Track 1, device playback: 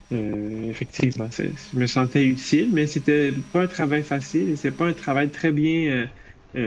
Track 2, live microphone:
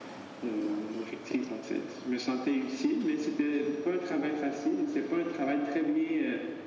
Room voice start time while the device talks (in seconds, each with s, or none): none